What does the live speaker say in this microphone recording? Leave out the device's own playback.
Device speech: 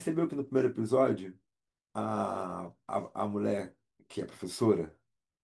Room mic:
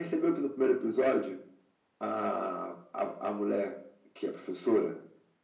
none

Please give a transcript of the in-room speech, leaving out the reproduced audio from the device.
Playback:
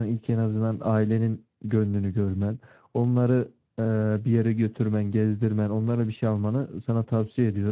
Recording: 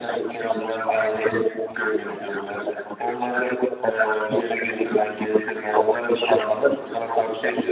none

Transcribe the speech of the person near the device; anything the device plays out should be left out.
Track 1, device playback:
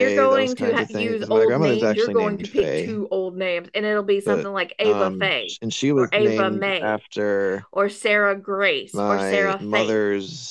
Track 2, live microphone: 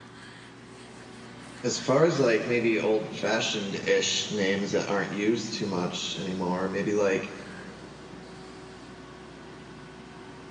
as far as like maybe old-fashioned-ish names that aren't used too much anymore, maybe like

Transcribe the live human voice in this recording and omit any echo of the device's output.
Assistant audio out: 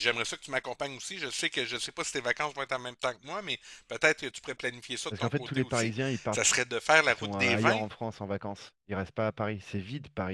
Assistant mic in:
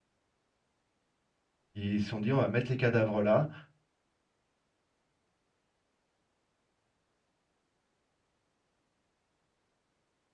Ils se sont dit, on va mettre les cadavres là.

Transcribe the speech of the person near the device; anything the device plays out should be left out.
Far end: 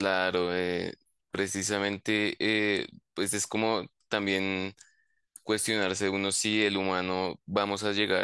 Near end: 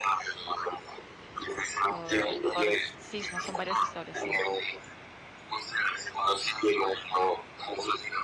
por, eh, por s- sí, son son varias historias, sí.

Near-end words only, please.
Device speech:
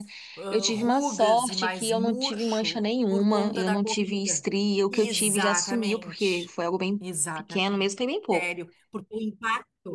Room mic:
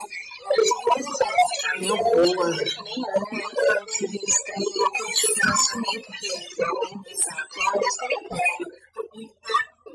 tenho horror.

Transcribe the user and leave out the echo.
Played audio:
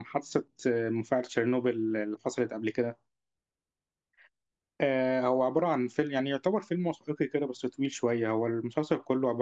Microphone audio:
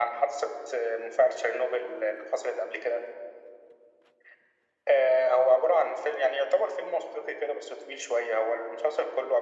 none

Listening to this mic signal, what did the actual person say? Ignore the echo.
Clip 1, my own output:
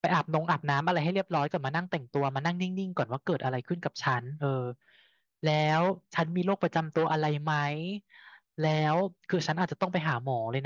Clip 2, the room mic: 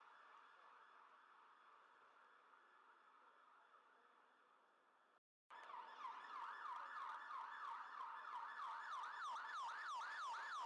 none

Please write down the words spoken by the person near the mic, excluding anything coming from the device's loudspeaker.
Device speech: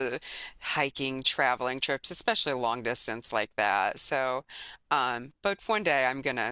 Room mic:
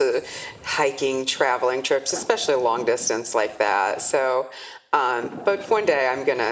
none

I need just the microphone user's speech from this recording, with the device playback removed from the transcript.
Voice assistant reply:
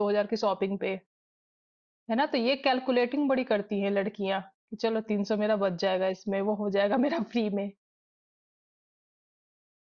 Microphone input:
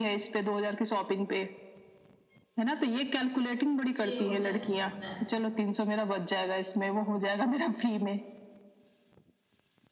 ये होता है ये होता है

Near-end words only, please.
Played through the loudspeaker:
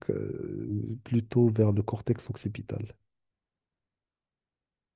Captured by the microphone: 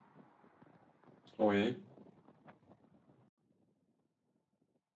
oui,

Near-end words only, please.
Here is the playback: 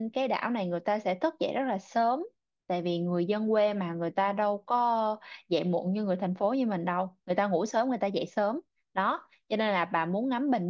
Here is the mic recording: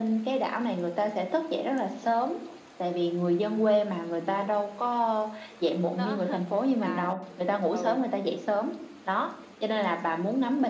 Đó là ừ,

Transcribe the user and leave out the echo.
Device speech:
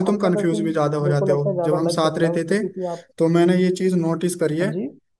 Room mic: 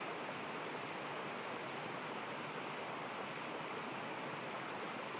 none

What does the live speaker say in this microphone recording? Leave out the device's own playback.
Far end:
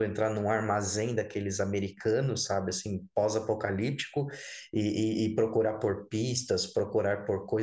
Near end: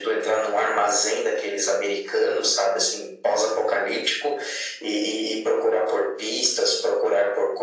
none

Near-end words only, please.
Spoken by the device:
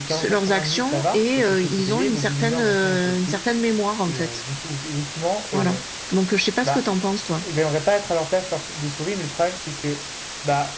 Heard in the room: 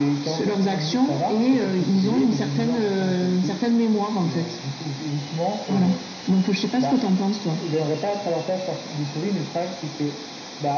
none

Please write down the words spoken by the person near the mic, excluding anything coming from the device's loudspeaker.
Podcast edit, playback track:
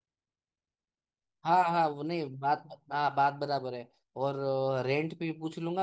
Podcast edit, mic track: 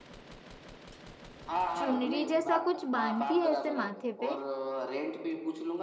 चुनरी जैसा कुछ बांधती है ऐसे माथे पे

